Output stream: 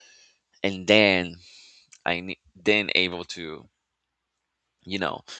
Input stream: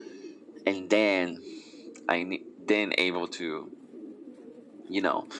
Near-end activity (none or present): none